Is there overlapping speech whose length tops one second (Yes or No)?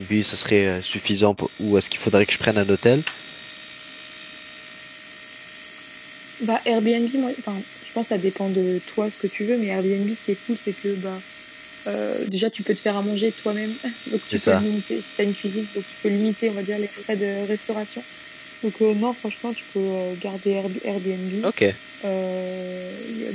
No